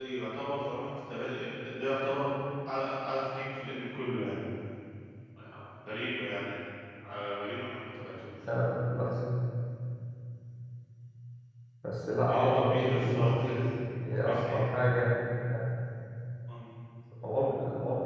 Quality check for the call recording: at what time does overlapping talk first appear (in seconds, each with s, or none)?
12.3 s